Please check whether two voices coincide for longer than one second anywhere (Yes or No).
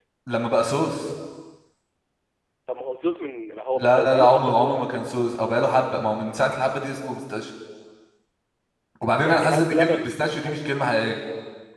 Yes